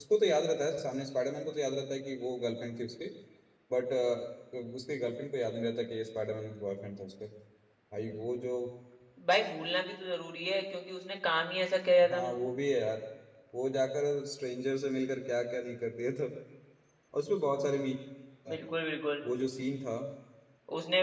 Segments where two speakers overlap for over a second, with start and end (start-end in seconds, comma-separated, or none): none